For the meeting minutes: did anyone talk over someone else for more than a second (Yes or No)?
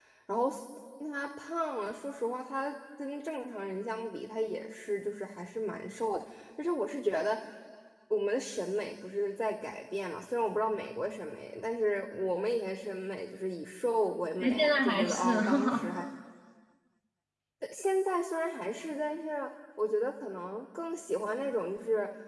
Yes